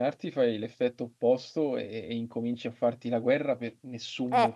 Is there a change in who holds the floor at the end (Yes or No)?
Yes